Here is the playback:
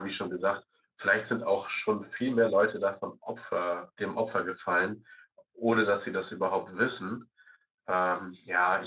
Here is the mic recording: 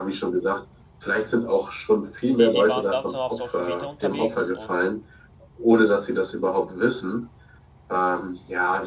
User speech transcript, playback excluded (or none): die, die waren ganz normal auf Social Media unterwegs und